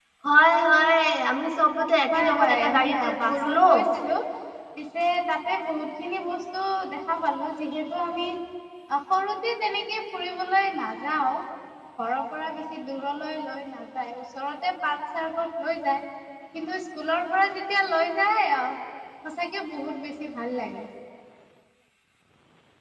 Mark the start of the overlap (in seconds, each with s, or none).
2.1 s